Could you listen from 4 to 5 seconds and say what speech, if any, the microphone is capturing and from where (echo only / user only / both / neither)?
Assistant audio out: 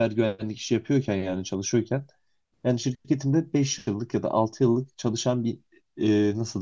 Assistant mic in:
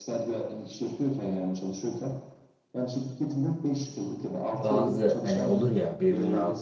both